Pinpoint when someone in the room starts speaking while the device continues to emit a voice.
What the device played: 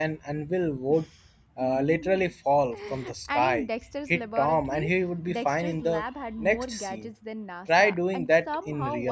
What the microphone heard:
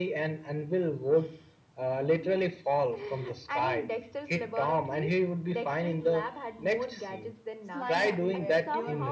7.6 s

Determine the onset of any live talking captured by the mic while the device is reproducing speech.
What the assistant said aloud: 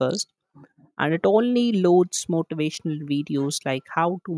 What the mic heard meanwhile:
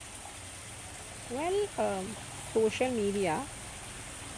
1.3 s

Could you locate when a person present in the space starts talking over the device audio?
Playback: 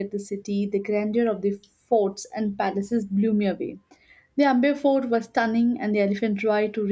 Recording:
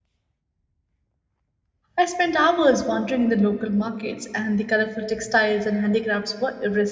2.0 s

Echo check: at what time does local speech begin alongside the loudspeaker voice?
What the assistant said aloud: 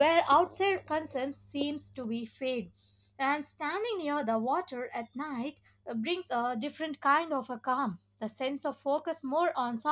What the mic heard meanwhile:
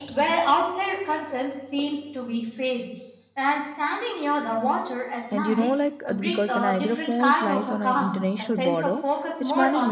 5.3 s

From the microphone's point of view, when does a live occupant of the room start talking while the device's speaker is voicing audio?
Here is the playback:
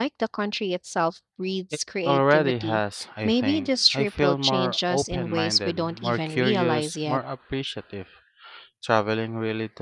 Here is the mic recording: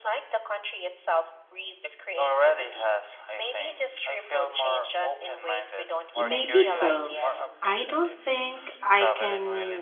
6.1 s

